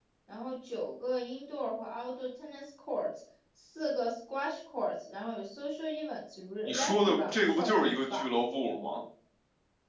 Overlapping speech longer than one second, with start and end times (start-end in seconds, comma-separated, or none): 6.7-8.2